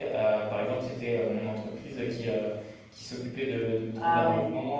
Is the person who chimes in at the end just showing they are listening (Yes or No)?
Yes